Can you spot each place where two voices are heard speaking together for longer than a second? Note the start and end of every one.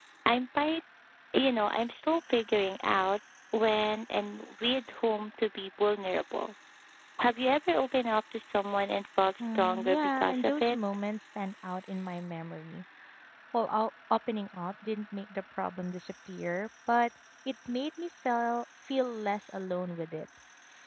9.4-10.8

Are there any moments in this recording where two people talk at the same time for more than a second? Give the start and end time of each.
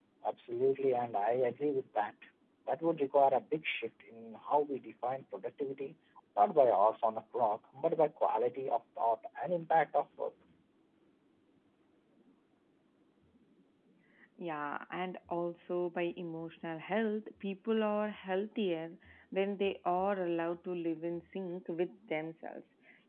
none

